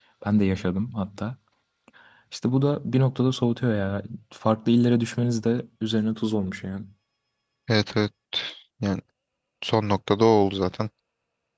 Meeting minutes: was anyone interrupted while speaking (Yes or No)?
No